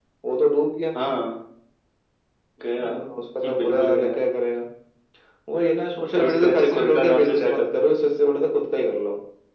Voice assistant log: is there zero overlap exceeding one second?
No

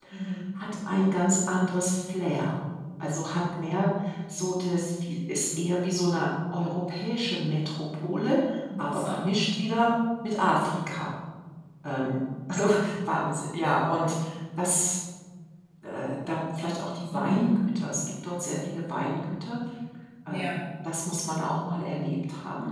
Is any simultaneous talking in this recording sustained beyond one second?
No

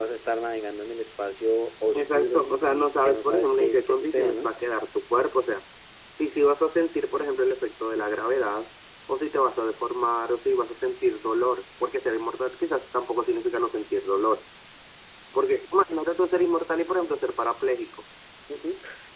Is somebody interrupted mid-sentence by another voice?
Yes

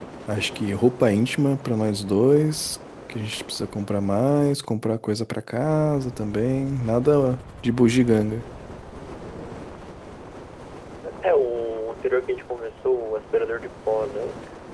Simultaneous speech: No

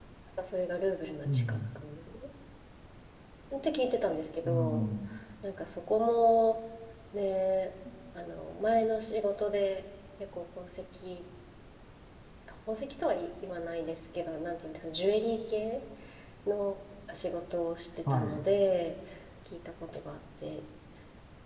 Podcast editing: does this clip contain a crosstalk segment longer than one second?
No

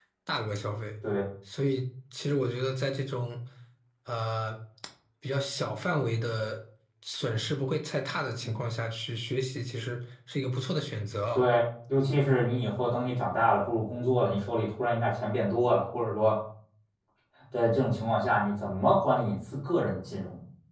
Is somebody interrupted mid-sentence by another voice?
No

